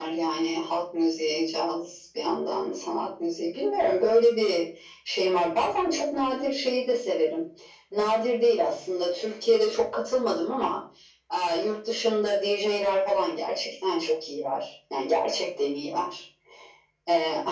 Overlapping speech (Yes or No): No